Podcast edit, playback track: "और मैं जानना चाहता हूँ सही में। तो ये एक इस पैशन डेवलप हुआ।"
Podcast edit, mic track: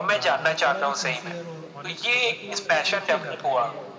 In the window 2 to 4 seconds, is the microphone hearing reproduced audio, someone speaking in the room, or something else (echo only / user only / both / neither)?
both